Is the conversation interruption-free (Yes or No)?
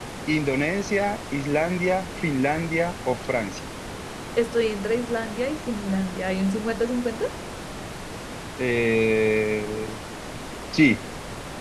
Yes